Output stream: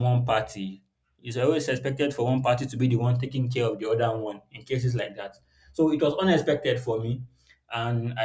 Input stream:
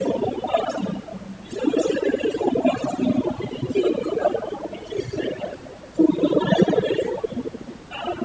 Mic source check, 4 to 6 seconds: echo only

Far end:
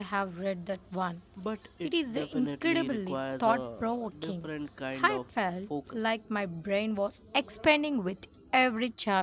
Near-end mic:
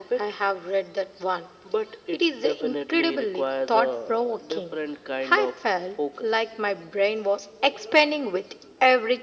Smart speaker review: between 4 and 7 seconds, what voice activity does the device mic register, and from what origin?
echo only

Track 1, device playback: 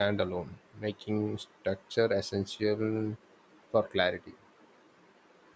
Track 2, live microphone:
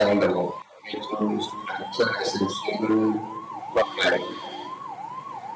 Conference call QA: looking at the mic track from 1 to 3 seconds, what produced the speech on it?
echo only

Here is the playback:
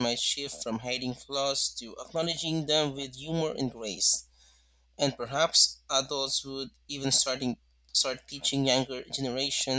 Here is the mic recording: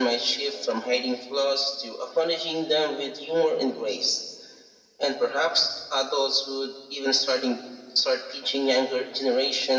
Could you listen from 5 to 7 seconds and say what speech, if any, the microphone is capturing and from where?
echo only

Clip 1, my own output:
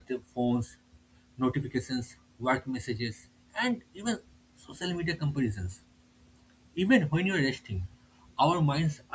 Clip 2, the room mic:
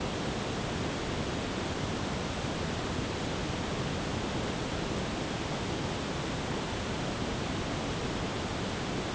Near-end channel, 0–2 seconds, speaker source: neither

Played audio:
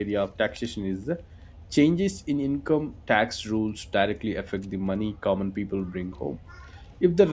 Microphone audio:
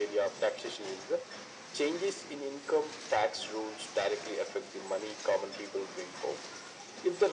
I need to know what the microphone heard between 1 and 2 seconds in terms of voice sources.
echo only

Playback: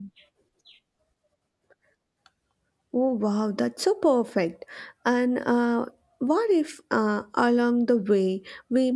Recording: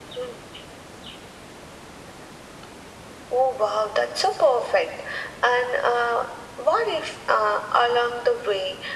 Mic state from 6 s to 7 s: echo only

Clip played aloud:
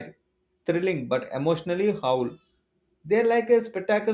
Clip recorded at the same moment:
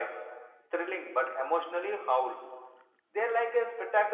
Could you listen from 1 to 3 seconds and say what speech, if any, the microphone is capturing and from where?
echo only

